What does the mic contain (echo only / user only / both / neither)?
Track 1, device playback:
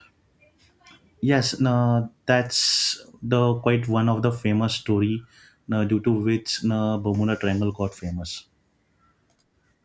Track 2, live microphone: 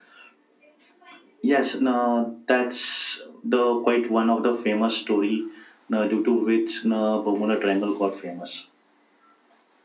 echo only